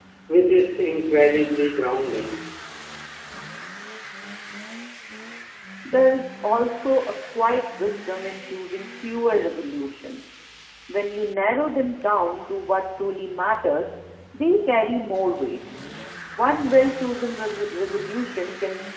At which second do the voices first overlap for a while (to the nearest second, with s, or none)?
none